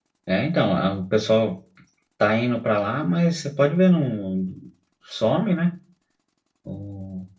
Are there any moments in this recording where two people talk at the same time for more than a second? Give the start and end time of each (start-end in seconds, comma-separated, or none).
none